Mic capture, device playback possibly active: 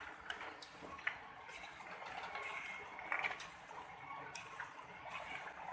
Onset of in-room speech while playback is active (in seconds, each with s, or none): none